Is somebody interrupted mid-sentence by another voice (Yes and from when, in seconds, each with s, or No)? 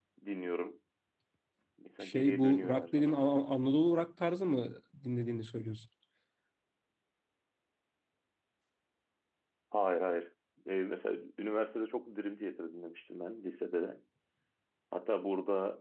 Yes, from 2.0 s